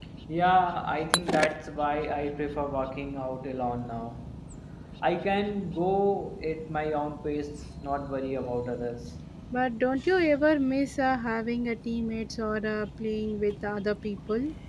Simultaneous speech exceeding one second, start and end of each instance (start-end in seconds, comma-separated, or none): none